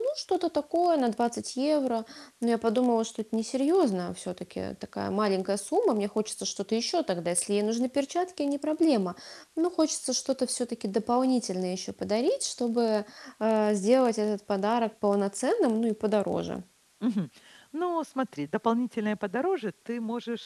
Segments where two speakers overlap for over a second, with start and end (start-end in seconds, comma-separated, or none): none